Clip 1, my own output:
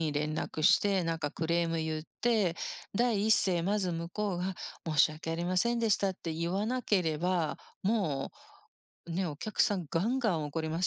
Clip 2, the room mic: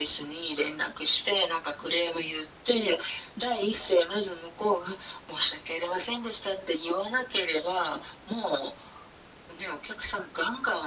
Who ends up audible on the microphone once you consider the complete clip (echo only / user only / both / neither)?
echo only